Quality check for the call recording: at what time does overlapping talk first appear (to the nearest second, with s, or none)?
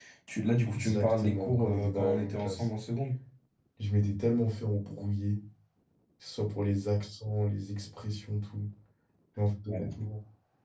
1 s